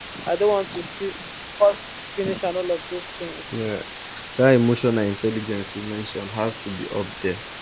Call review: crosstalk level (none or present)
none